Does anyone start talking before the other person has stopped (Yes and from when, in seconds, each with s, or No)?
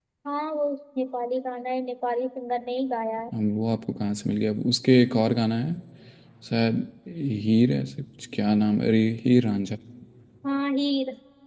No